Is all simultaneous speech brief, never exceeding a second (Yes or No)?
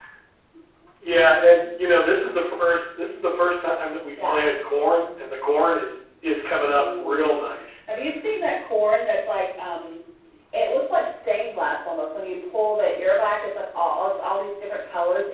Yes